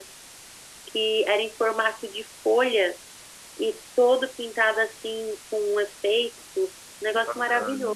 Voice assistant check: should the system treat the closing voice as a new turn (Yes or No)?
Yes